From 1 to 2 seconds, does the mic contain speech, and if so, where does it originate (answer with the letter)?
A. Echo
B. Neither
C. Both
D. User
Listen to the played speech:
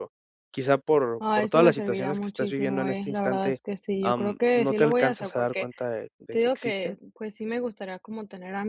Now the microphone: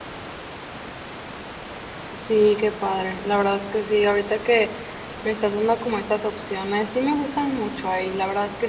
B